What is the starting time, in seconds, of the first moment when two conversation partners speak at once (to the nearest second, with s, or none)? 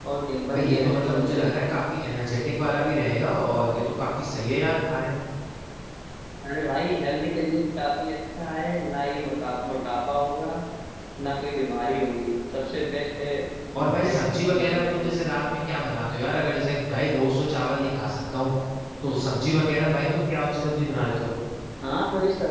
1 s